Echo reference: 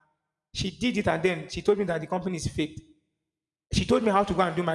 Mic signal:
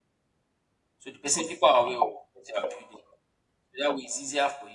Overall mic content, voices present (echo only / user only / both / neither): user only